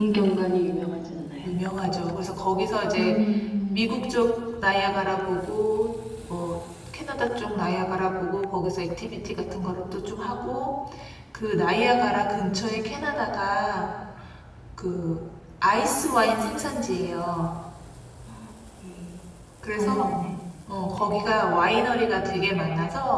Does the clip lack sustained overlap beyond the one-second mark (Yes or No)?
Yes